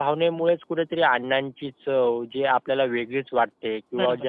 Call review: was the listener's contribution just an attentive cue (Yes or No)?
Yes